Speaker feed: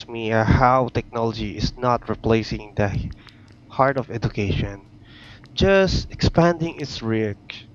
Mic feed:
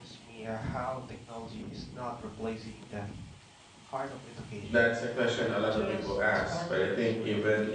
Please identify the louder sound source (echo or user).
user